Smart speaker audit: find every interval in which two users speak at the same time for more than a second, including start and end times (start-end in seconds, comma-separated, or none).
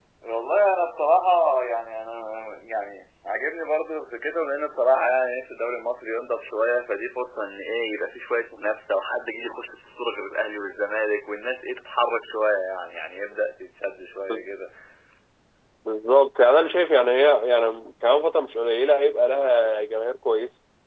none